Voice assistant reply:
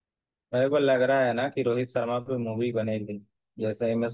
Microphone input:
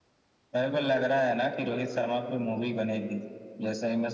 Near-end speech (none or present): none